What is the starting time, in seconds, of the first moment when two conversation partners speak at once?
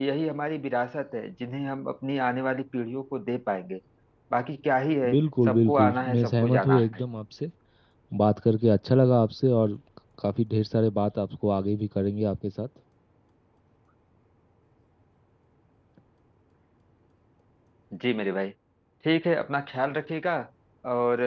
5.1 s

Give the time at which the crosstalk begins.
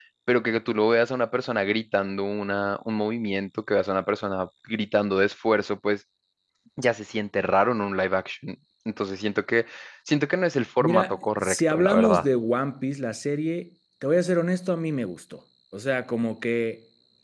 10.8 s

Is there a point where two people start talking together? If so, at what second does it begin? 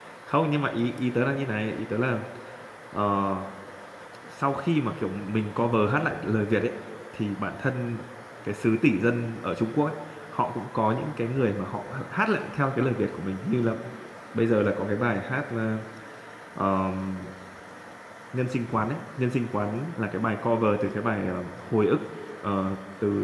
none

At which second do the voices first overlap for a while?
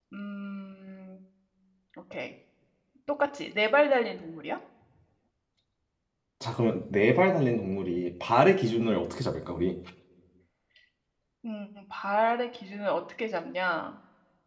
none

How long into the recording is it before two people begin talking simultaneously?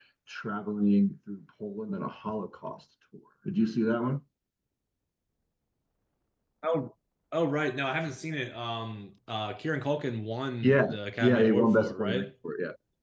10.6 s

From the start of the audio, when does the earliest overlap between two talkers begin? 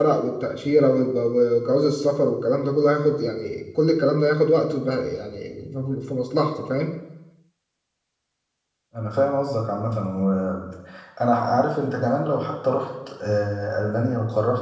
none

